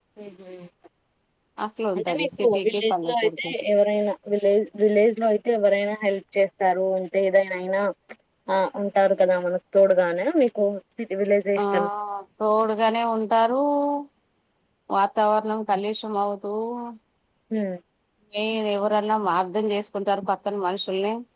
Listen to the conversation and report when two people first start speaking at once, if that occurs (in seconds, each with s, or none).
2.0 s